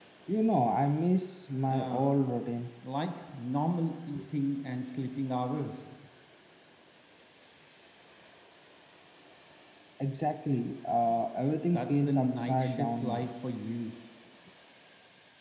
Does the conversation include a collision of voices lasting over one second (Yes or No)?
Yes